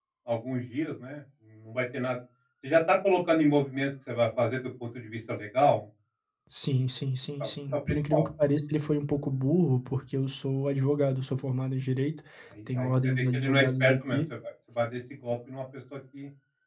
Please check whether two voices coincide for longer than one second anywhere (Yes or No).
Yes